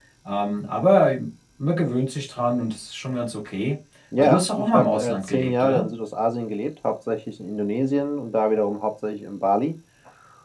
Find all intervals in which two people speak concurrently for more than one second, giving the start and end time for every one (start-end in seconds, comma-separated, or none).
4.2-5.9